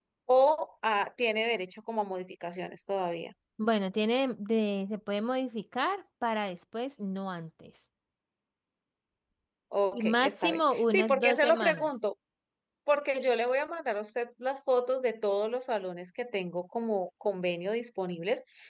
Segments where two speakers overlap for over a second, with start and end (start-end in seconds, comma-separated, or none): 9.9-11.9